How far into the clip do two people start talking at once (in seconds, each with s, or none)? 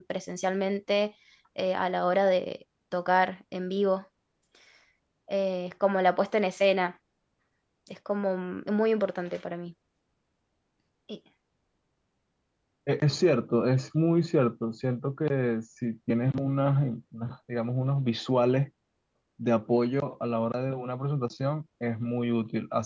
none